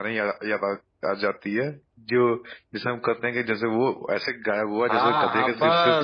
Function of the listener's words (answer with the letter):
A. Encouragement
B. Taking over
B